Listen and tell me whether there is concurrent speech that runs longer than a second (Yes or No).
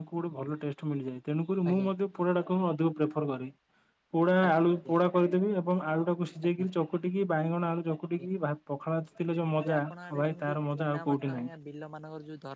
Yes